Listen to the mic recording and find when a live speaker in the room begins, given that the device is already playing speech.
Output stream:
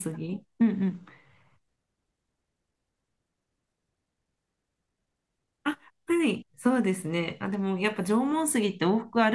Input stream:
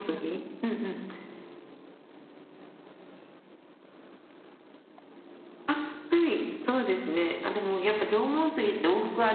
none

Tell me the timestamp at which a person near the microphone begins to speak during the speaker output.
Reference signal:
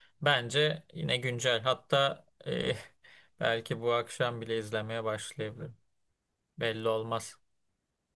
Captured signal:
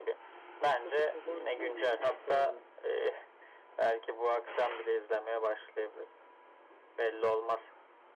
0.4 s

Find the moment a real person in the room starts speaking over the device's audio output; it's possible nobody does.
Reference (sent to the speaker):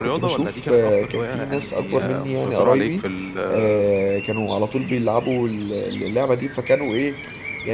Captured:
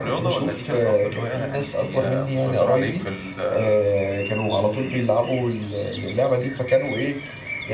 none

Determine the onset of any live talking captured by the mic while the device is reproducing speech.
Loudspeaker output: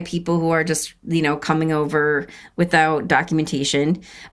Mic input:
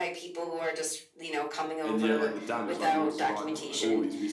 1.8 s

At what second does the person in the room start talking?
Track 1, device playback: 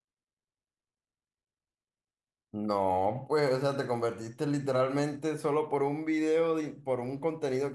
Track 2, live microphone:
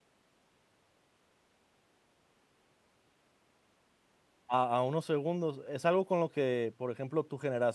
4.5 s

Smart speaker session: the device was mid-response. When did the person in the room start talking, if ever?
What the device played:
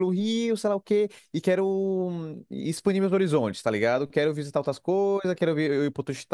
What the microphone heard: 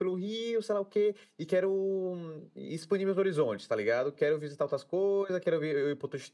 none

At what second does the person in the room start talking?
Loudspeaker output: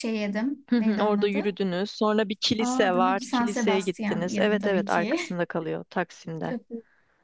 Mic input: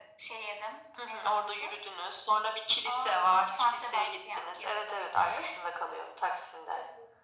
none

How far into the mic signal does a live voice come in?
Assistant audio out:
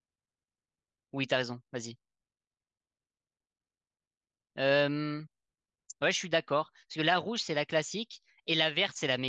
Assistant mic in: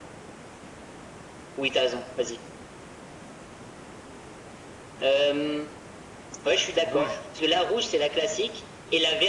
6.8 s

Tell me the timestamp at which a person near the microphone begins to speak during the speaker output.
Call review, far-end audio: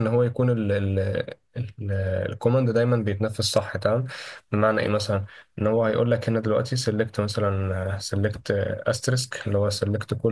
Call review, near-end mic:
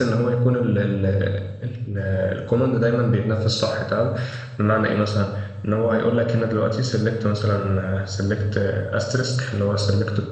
none

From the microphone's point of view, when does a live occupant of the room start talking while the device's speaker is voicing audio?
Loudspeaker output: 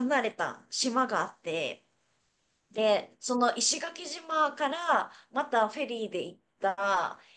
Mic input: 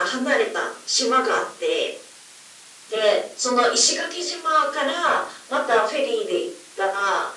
none

